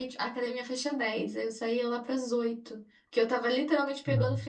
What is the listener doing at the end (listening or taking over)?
listening